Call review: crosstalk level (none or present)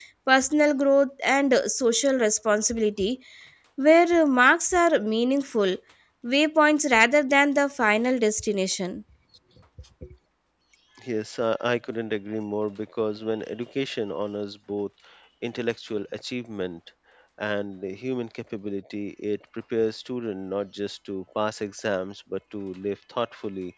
none